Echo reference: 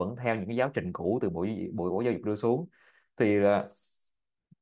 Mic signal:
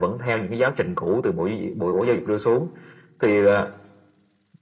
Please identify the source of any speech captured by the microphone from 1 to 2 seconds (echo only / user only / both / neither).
echo only